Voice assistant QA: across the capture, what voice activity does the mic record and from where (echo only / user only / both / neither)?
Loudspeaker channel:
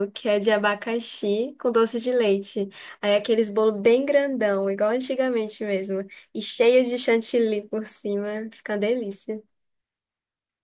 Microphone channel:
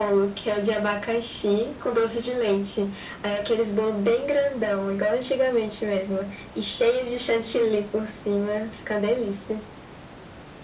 echo only